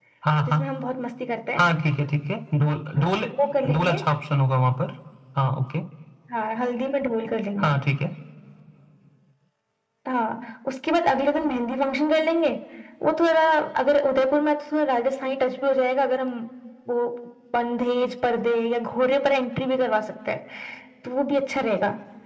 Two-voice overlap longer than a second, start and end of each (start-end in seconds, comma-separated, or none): none